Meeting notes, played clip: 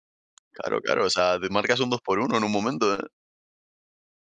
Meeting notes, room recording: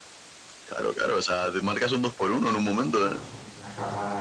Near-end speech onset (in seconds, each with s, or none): 2.7 s